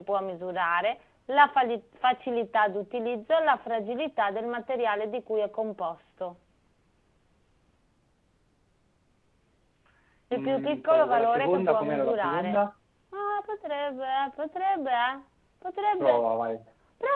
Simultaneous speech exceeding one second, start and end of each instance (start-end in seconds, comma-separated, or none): 10.3-12.6